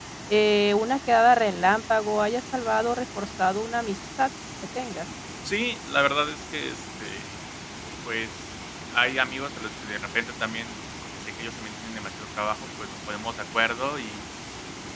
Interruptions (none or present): none